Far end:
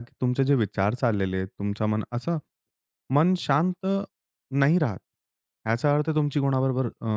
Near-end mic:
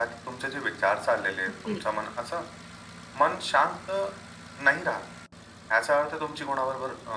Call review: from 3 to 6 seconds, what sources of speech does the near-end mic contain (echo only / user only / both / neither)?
echo only